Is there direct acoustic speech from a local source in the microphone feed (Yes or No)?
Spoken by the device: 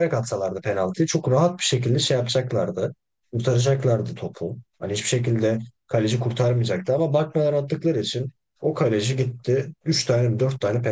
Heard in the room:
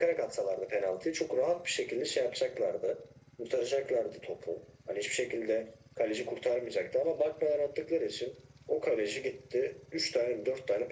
No